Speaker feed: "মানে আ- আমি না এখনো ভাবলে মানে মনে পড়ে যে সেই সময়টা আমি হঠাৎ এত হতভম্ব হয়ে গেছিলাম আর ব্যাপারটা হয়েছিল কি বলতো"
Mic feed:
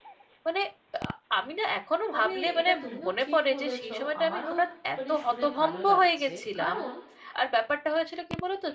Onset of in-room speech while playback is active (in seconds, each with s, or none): 2.1 s